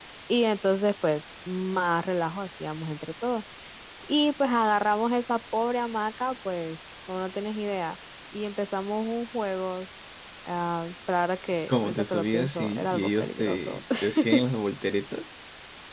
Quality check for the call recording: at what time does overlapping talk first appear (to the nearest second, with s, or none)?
12 s